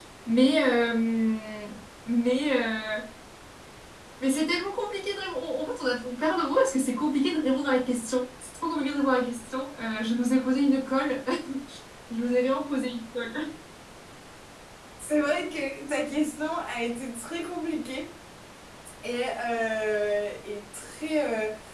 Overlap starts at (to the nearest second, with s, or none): none